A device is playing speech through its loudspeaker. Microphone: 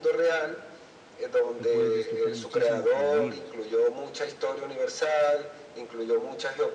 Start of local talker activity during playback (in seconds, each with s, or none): 1.6 s